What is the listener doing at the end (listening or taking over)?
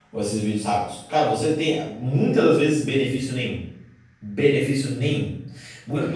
listening